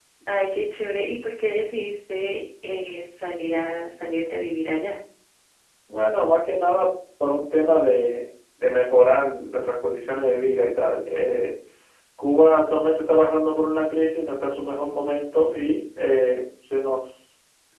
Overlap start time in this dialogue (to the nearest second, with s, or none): none